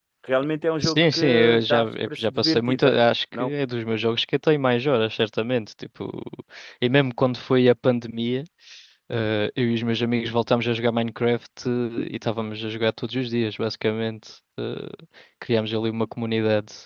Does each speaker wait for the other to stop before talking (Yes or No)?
No